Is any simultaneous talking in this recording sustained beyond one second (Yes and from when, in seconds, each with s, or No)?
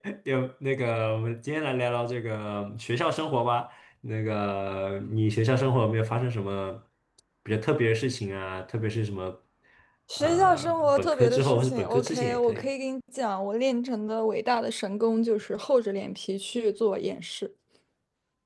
Yes, from 10.2 s